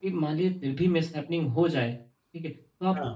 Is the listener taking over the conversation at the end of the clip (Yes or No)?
No